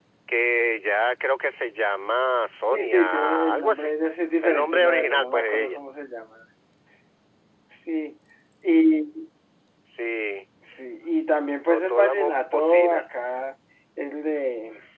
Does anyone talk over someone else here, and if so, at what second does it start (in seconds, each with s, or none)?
2.7 s